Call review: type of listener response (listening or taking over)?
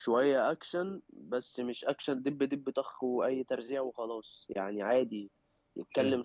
listening